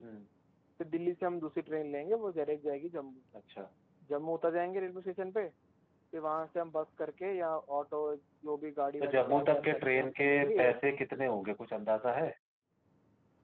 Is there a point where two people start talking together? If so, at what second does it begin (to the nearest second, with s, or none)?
9 s